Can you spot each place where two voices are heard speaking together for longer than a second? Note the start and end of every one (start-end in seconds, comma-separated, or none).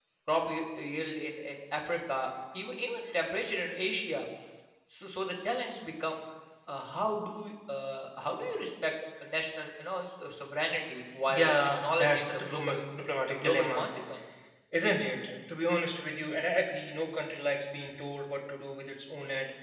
11.3-12.8